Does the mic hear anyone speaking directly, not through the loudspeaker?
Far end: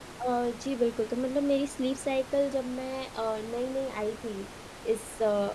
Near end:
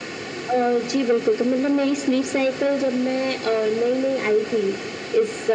No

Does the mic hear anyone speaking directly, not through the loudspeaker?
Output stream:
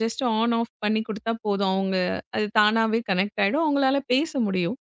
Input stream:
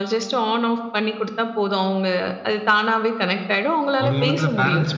Yes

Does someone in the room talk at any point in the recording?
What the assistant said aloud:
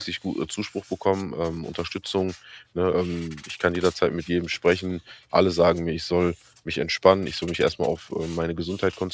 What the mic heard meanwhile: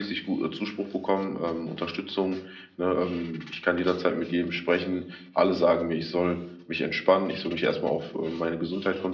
No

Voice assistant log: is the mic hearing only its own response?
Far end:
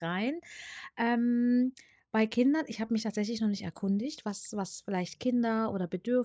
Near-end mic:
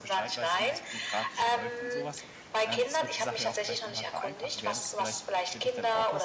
No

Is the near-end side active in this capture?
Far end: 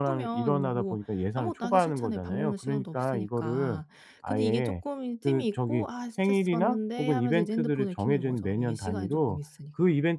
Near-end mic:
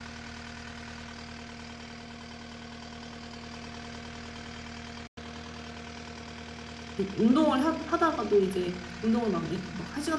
Yes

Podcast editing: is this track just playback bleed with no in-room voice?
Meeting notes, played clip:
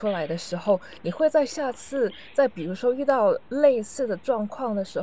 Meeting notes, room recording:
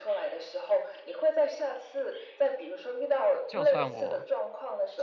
No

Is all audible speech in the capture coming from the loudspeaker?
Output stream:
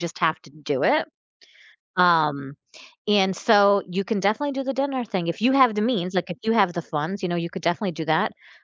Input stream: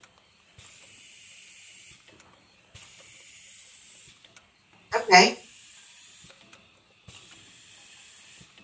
No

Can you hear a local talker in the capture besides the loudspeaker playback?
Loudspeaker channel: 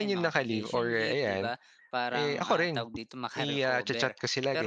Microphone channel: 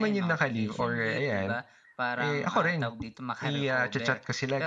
No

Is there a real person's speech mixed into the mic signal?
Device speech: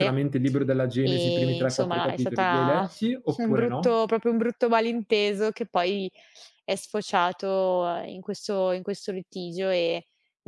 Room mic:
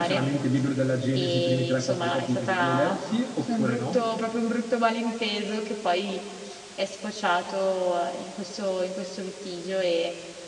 No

